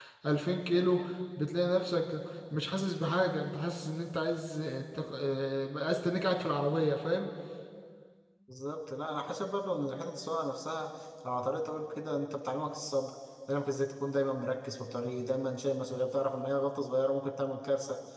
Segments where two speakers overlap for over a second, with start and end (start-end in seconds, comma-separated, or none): none